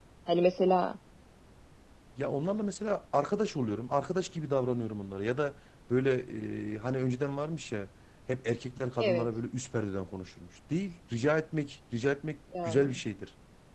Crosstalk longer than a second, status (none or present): none